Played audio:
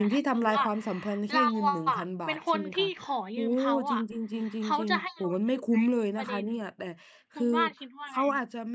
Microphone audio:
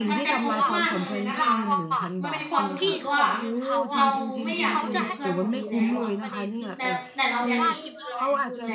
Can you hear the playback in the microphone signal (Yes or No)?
Yes